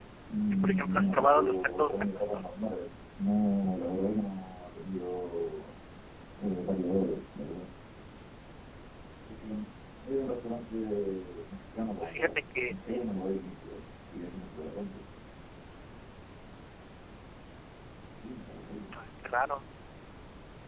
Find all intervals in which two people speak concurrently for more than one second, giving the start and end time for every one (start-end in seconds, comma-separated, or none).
0.5-2.4